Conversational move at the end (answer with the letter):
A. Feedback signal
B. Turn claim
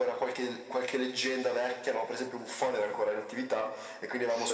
A